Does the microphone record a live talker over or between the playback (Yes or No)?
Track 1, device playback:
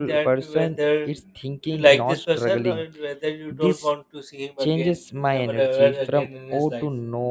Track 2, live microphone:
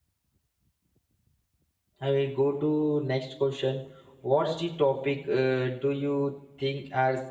Yes